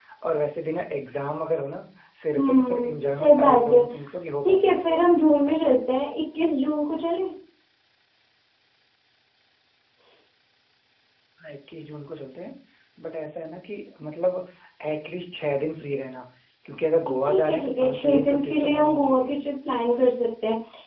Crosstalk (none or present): present